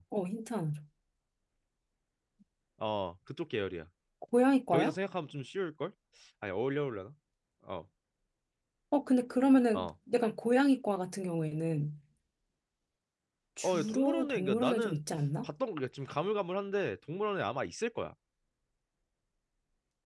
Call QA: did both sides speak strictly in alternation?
No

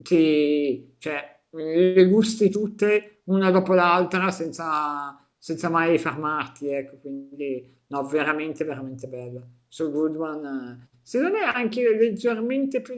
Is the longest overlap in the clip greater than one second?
No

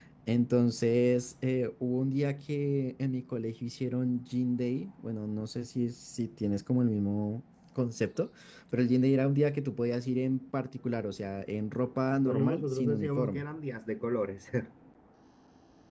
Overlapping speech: Yes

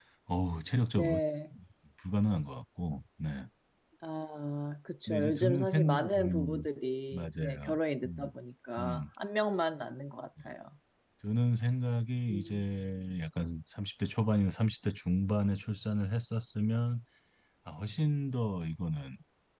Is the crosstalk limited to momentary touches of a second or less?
No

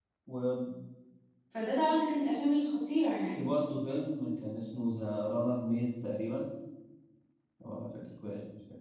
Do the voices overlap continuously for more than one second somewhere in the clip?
No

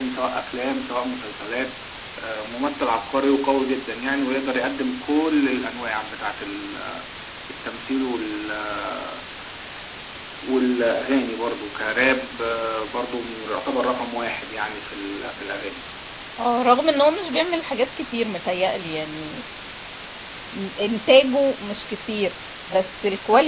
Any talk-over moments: No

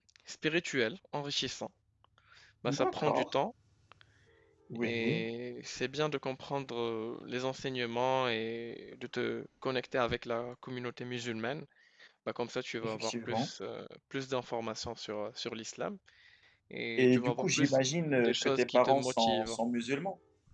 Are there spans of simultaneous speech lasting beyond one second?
Yes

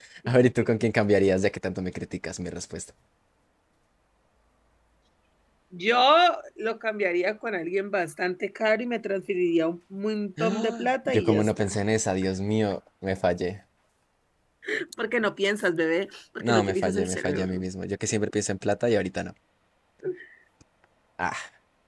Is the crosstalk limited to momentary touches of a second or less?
No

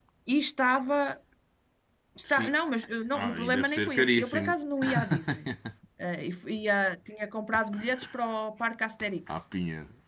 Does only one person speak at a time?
No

